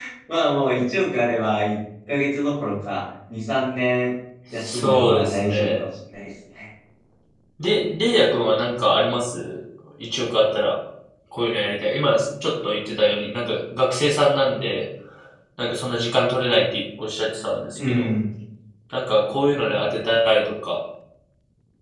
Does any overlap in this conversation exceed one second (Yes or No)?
Yes